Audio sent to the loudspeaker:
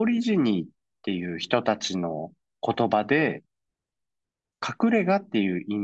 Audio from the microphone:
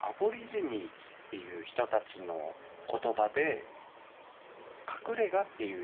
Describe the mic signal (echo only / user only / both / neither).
echo only